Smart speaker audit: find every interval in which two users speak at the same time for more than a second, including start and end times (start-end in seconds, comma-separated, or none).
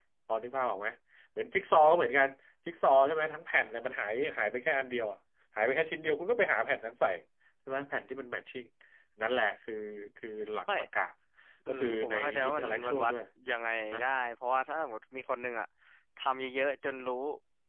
11.7-13.1